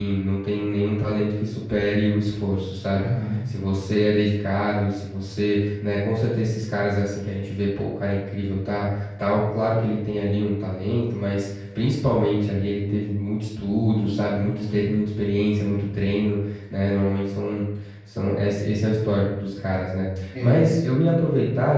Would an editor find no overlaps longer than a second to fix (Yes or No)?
Yes